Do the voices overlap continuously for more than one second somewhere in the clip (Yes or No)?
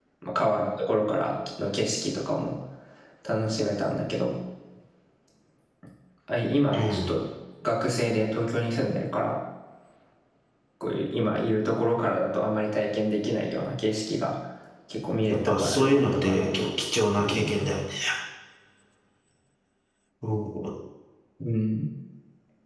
Yes